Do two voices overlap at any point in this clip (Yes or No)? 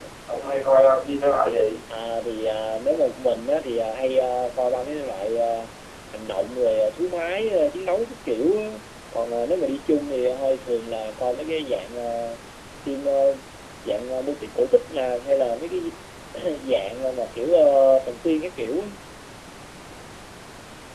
No